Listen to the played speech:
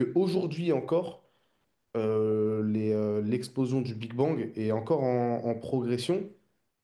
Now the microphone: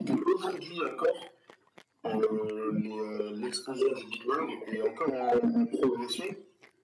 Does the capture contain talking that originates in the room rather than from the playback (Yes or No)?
No